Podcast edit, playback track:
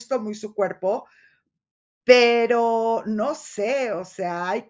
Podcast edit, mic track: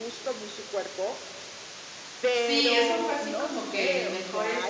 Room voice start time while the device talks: 2.3 s

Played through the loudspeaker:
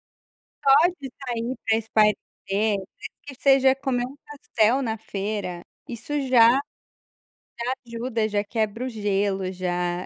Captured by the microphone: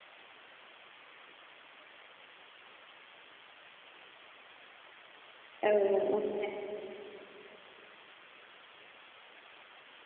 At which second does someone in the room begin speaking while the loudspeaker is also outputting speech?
5.6 s

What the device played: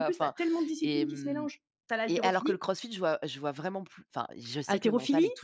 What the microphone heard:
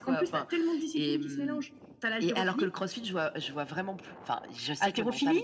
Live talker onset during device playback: none

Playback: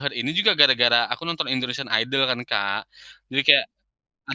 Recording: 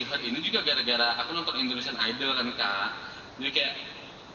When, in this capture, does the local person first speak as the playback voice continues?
none

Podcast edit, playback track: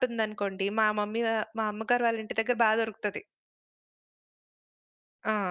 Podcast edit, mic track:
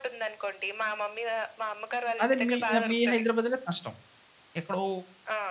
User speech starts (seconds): 2.2 s

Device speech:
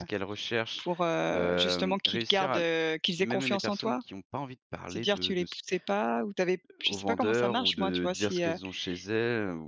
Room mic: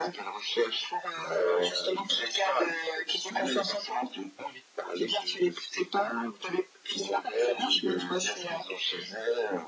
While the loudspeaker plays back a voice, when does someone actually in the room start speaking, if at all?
none

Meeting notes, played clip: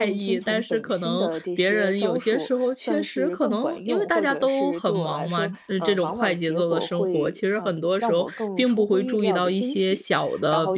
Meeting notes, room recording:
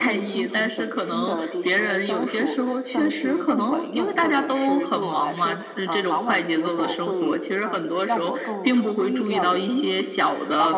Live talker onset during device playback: none

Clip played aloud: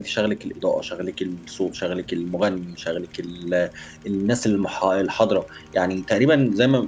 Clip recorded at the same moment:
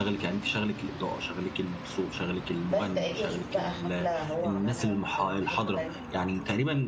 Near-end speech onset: 2.7 s

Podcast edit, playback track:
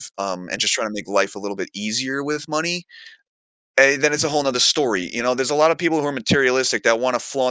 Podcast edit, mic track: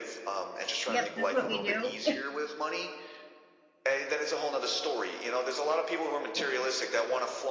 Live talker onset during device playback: 0.9 s

